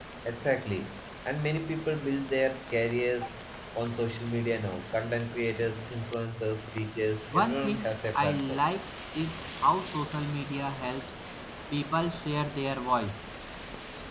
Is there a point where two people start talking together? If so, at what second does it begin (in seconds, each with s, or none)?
7.3 s